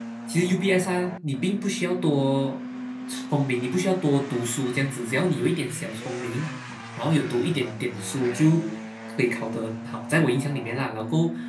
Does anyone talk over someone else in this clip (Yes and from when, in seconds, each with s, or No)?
No